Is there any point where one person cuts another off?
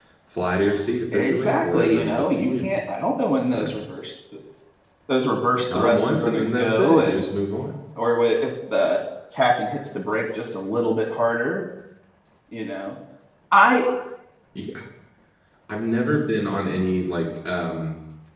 Yes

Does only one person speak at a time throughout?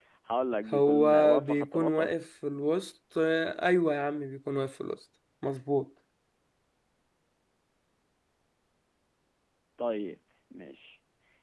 No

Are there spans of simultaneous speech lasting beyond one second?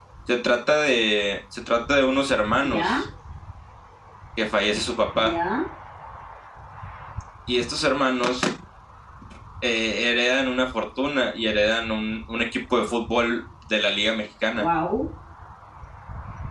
No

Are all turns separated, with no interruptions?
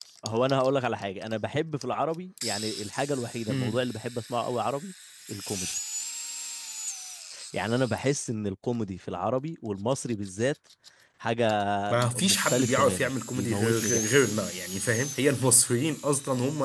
No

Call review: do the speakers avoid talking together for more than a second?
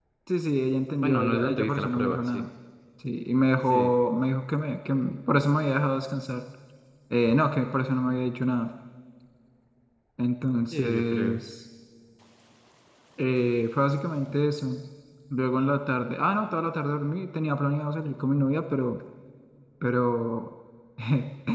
No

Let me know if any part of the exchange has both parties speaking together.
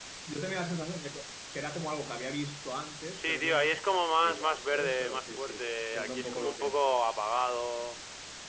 Yes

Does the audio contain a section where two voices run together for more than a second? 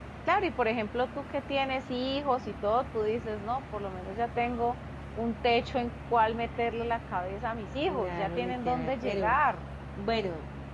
Yes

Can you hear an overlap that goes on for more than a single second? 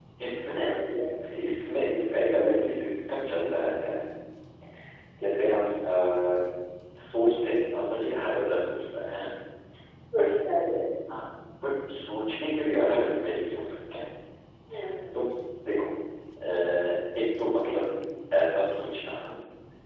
No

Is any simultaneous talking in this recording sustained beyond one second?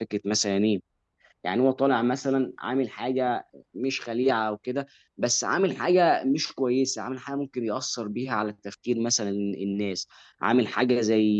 No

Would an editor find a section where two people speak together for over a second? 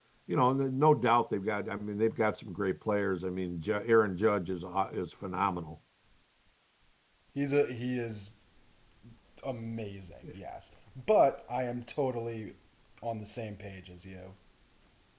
No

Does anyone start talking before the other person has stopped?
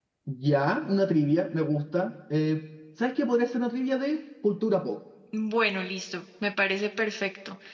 No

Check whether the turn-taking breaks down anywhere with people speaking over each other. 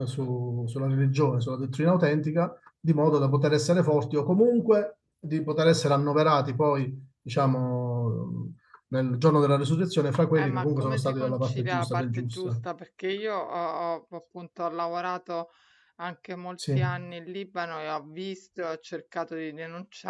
Yes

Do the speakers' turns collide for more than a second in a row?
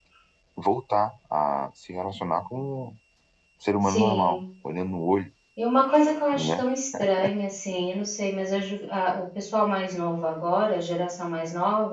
No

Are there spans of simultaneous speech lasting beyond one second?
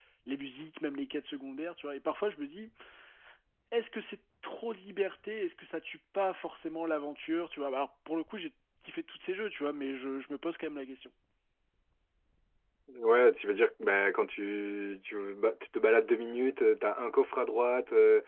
No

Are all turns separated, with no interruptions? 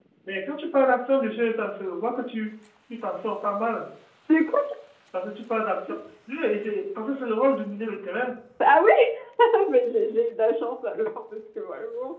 Yes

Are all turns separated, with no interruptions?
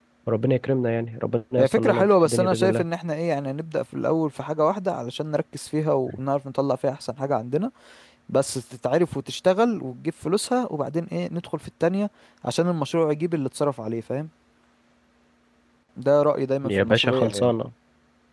No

